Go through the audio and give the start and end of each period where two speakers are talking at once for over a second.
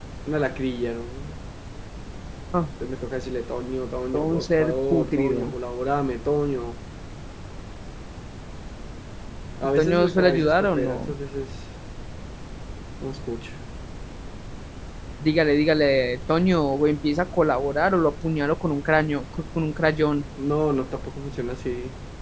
4.1-5.5, 9.8-11.2

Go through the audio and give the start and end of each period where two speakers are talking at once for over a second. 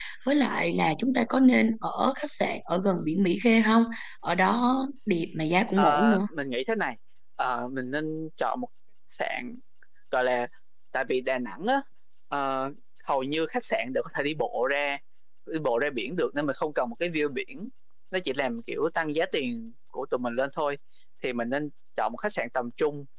none

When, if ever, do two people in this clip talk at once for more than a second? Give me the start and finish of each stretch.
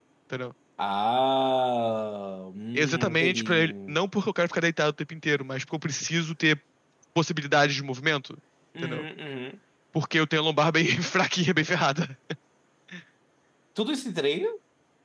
2.7-4.0

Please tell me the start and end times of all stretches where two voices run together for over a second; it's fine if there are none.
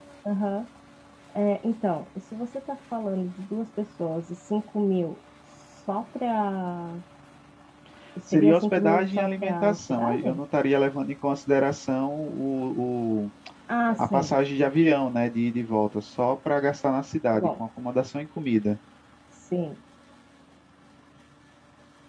8.3-10.4

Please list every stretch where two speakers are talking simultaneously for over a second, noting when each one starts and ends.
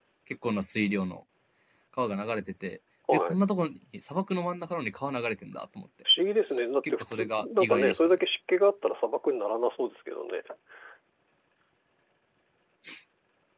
6.9-8.2

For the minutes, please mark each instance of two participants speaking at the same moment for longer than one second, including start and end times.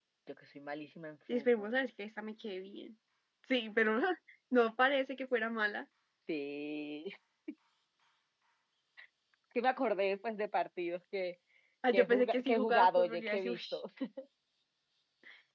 11.9-13.6

